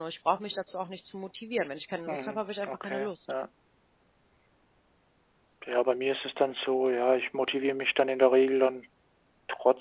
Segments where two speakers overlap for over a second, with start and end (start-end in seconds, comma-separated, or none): 2.1-3.3